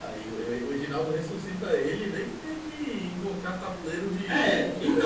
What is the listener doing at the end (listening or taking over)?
taking over